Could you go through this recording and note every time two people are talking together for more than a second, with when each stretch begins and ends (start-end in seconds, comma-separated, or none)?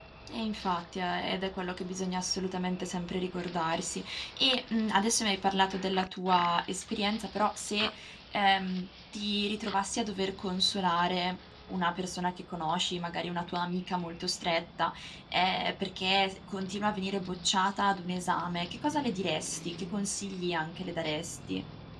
none